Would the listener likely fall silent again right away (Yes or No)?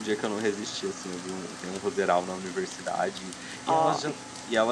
Yes